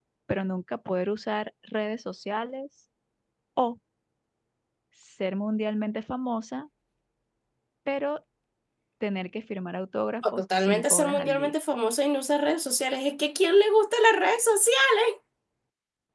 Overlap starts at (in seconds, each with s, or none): 10.2 s